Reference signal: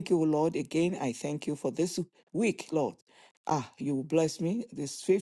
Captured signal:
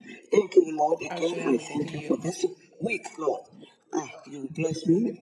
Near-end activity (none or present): present